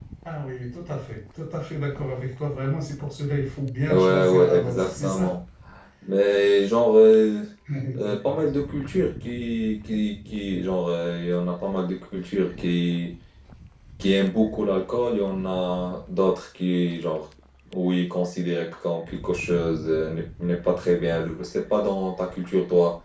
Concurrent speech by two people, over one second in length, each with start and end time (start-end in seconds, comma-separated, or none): 3.9-5.4